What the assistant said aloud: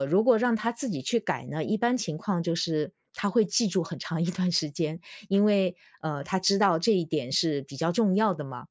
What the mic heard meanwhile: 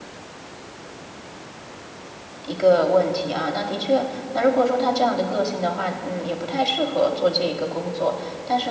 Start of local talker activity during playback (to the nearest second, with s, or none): 2 s